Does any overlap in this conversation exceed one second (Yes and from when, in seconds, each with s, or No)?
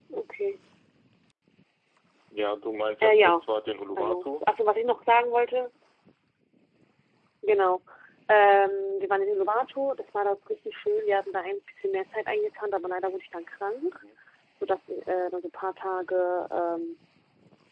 No